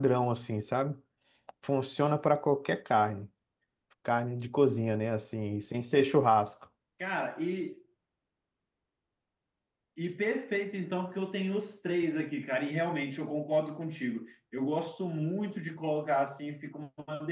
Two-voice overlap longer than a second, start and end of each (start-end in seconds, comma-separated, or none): none